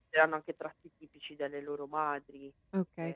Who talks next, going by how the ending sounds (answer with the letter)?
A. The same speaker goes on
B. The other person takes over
B